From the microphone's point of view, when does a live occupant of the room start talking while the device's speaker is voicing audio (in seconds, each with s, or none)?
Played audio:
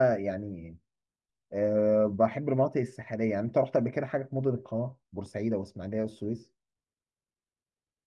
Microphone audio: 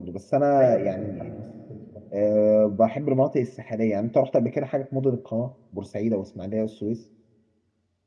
0.6 s